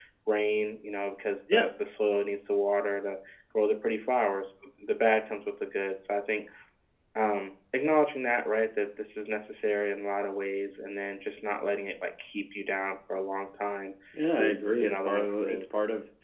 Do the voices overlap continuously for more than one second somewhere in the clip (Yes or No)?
Yes